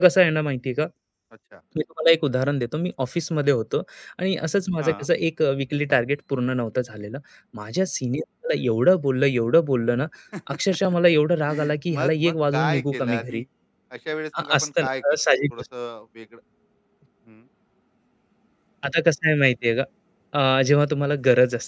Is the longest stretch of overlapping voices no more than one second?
No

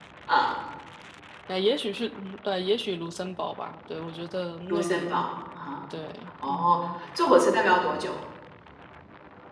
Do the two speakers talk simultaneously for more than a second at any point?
No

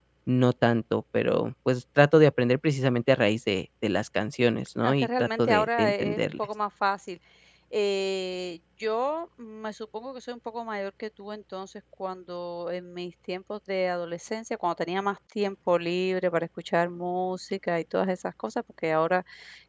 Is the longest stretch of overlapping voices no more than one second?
No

